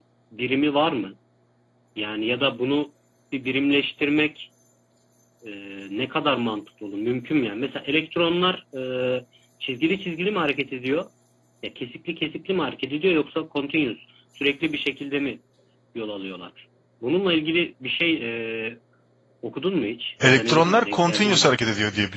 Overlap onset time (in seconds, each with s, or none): 20.2 s